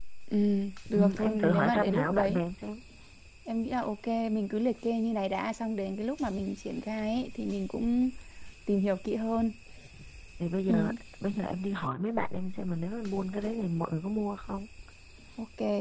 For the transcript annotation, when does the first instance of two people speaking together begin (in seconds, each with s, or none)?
0.9 s